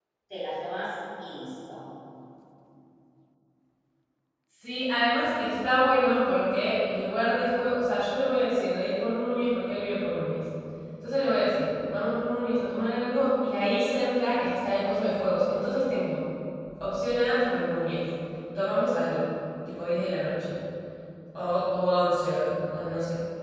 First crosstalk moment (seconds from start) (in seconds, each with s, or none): none